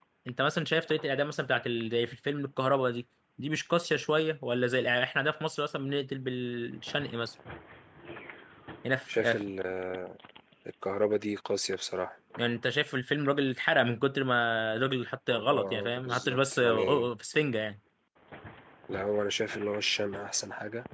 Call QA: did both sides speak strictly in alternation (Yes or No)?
No